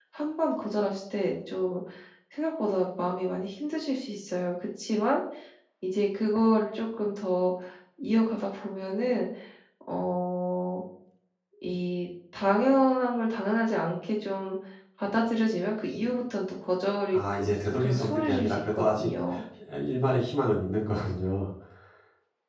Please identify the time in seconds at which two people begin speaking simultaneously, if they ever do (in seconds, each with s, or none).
17.1 s